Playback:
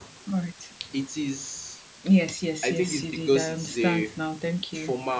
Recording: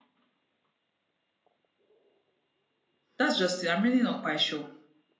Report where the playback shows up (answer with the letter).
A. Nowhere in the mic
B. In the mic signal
A